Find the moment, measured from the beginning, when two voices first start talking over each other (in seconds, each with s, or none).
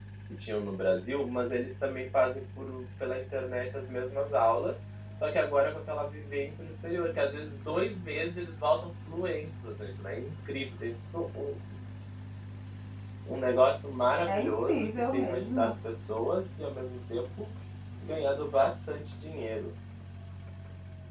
14.2 s